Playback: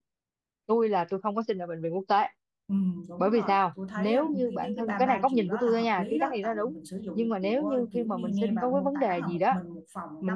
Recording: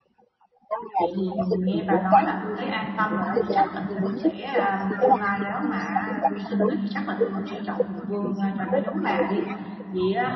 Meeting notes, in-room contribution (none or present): present